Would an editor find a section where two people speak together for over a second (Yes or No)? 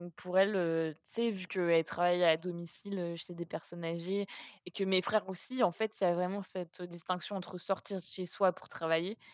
No